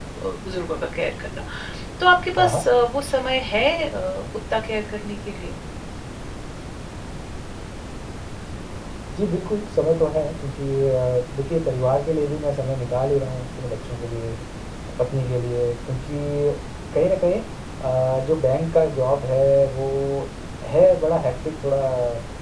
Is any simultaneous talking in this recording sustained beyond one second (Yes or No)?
No